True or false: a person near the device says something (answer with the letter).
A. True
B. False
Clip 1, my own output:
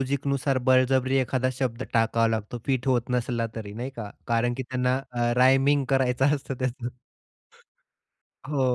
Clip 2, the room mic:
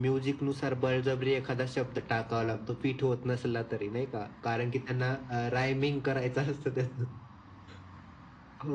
B